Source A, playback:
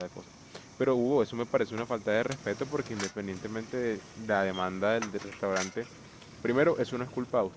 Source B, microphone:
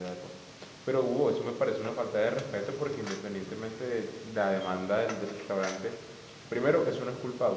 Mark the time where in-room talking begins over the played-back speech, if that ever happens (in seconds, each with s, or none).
none